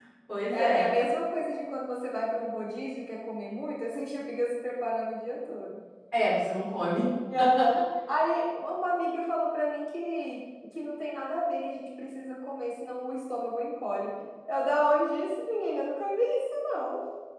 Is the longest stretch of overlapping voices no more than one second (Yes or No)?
Yes